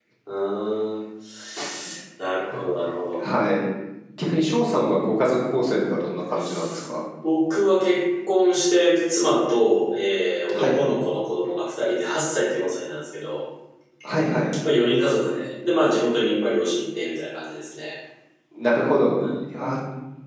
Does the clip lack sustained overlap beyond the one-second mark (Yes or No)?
Yes